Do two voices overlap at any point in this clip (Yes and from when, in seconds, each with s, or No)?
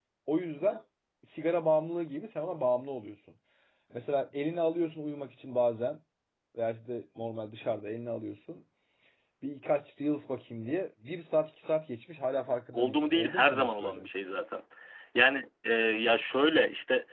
Yes, from 12.7 s